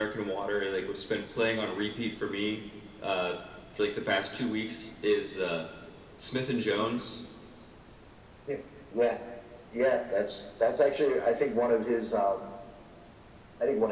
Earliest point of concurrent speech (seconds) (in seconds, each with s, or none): none